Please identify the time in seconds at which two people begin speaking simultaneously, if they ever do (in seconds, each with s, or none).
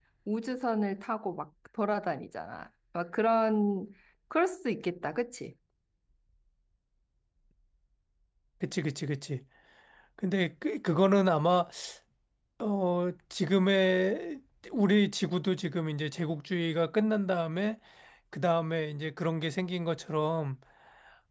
none